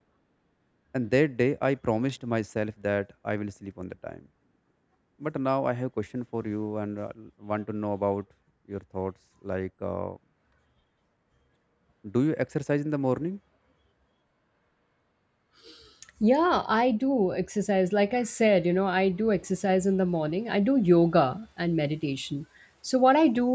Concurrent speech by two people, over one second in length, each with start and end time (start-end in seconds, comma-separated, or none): none